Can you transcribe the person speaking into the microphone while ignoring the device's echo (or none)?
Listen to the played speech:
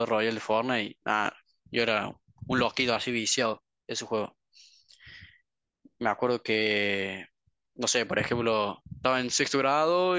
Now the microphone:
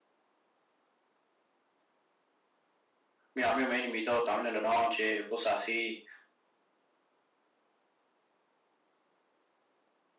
mis amigos me han invitado también en la noche, o cosas así,